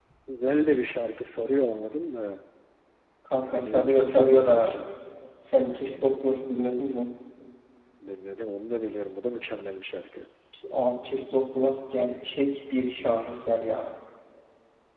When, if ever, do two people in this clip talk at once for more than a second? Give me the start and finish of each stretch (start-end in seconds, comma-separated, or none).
3.4-4.8